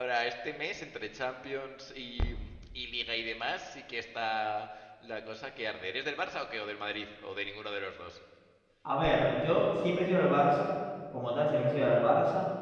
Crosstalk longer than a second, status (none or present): none